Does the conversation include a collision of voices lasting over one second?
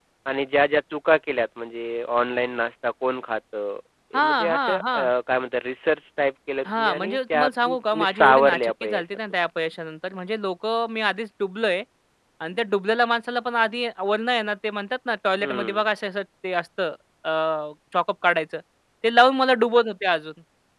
Yes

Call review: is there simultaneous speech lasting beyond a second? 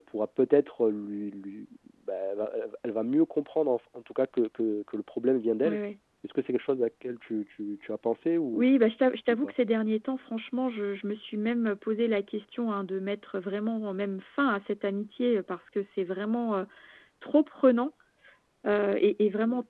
No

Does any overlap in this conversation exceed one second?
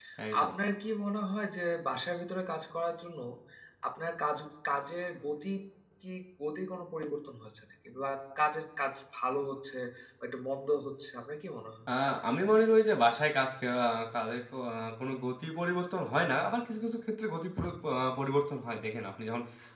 No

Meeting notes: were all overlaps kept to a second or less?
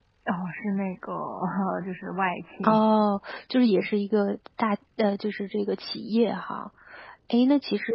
Yes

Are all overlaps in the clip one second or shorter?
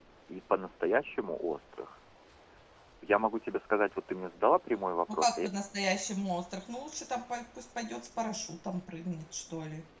Yes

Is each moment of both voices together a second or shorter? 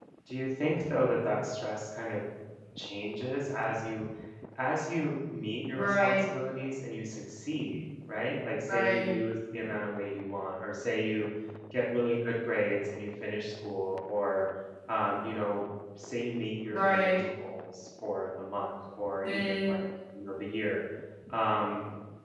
Yes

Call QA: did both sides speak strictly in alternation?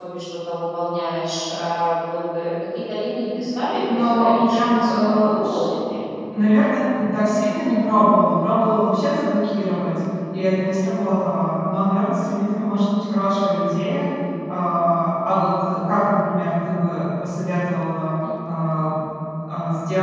No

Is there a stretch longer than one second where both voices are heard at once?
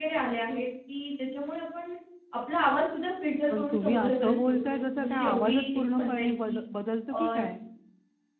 Yes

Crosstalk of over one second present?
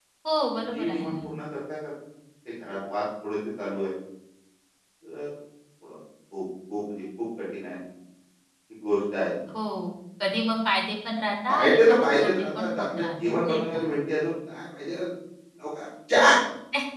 Yes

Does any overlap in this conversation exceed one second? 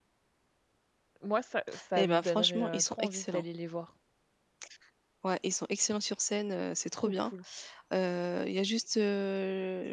Yes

